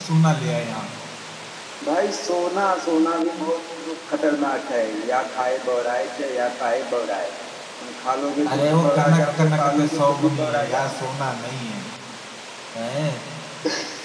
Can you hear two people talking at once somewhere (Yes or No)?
Yes